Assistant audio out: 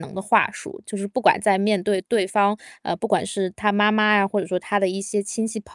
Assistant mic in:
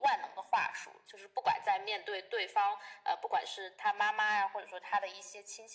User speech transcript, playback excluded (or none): none